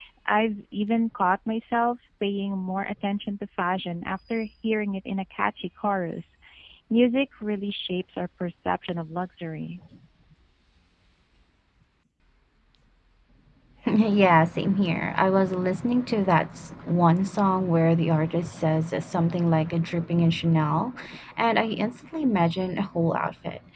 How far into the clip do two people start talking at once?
none

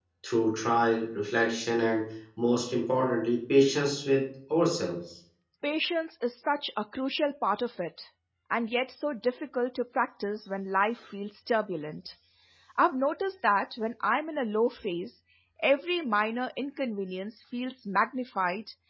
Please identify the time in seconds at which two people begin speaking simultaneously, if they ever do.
none

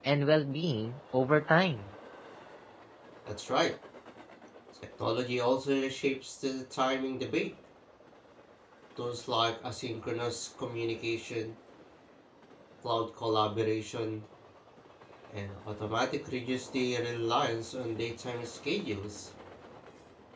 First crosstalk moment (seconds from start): none

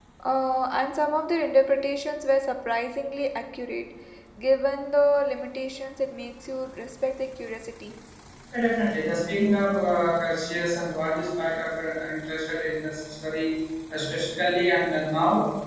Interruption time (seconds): none

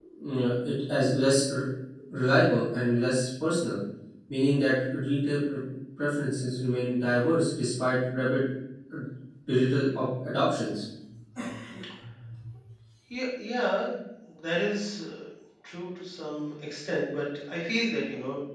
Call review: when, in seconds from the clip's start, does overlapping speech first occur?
none

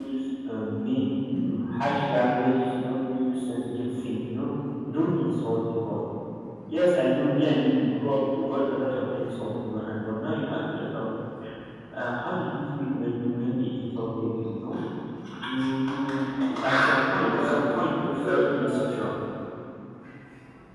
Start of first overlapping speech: 17.2 s

